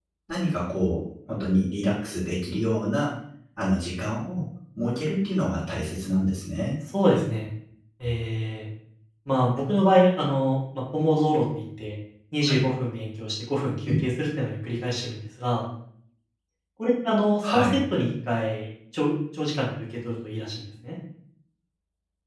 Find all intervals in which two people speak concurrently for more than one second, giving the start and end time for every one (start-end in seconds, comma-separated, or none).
none